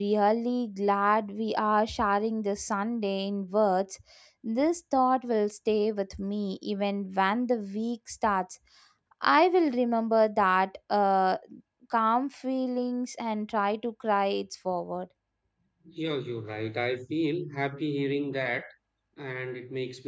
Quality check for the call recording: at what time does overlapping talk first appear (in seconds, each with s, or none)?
none